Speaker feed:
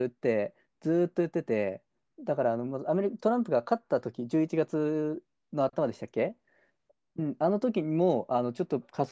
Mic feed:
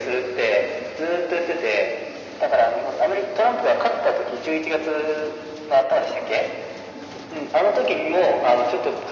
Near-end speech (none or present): none